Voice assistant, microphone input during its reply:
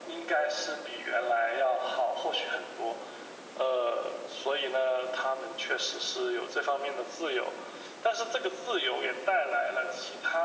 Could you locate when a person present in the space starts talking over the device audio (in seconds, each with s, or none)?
none